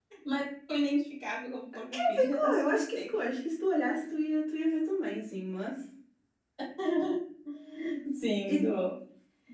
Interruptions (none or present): present